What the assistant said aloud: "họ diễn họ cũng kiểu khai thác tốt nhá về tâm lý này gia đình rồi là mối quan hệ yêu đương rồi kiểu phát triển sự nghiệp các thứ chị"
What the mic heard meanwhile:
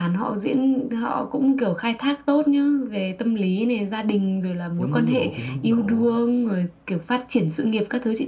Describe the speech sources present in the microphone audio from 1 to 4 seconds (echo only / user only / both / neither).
echo only